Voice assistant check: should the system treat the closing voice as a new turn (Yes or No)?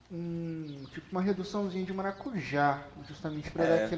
No